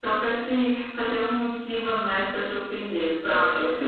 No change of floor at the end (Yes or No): No